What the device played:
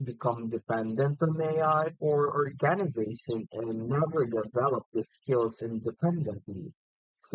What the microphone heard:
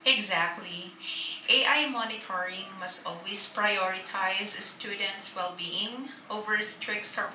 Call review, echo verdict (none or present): none